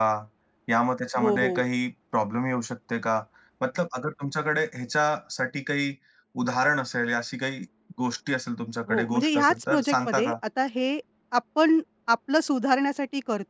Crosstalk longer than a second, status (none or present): present